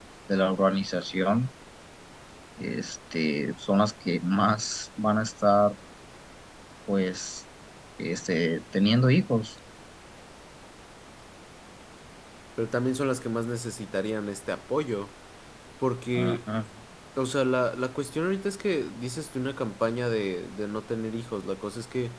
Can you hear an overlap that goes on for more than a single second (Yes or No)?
No